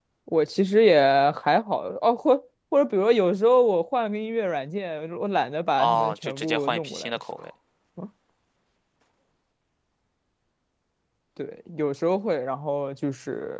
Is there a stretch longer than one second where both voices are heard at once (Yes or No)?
Yes